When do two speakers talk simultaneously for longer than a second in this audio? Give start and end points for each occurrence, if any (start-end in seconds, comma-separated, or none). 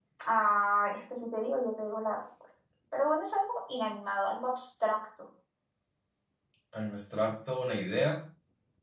none